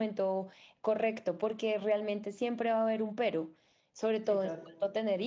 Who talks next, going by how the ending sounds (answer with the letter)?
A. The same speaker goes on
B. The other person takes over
A